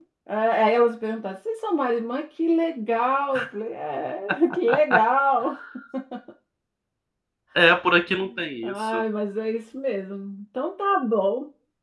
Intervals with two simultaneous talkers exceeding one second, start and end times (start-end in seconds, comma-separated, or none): none